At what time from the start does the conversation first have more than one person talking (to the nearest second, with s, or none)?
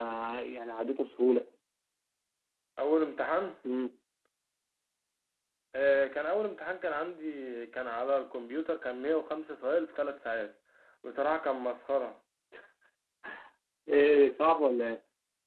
none